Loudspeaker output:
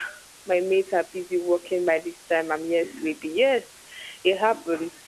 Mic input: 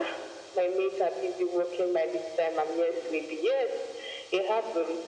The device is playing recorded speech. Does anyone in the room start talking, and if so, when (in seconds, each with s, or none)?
none